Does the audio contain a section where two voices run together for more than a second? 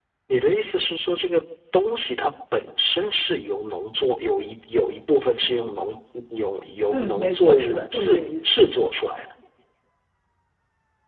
Yes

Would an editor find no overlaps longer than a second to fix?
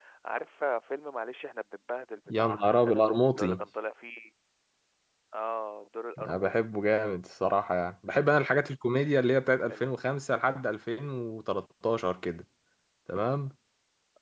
No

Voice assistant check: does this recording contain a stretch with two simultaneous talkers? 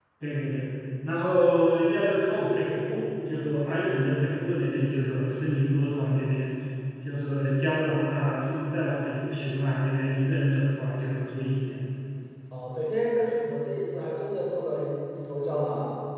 No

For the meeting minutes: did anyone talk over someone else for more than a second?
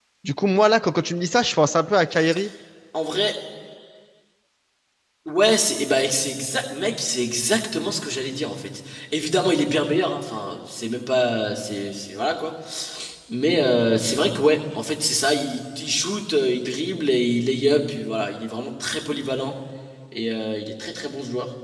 No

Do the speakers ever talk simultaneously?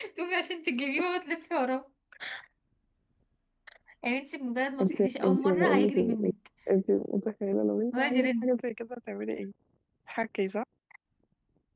Yes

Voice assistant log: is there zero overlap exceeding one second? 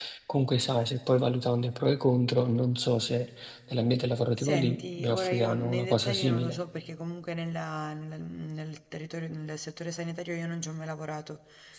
No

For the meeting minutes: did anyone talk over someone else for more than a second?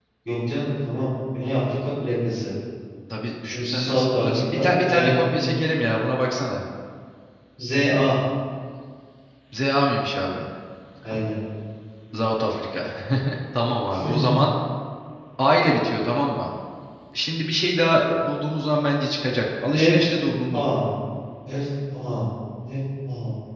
Yes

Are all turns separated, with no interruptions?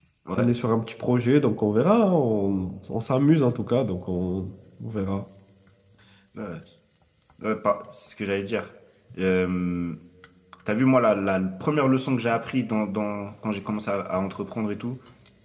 Yes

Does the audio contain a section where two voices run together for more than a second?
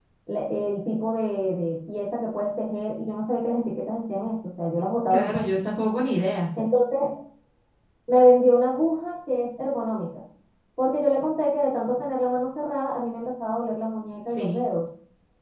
No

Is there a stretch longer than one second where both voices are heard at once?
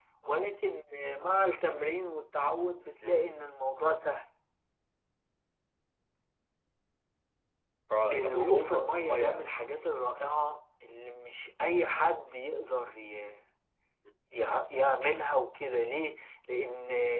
Yes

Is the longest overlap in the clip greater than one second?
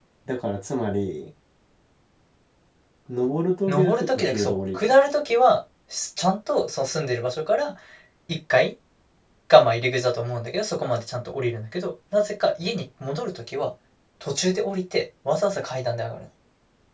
Yes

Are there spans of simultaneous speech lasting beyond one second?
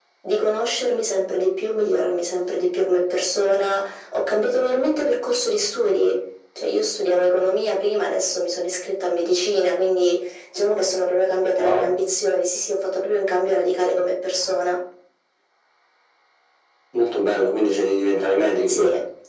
No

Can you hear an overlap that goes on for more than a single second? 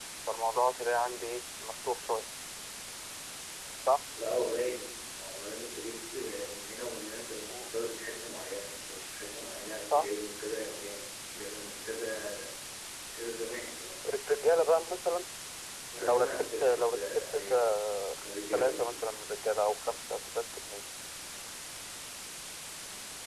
Yes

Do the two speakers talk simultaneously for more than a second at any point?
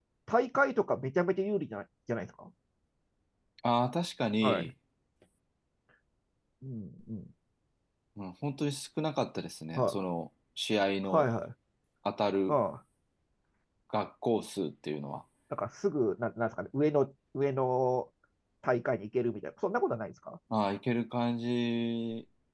No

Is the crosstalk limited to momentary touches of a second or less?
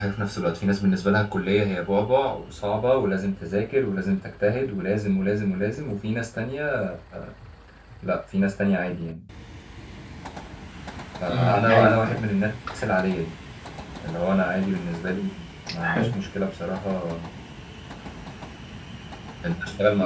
No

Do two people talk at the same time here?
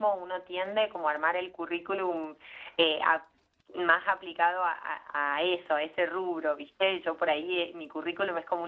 No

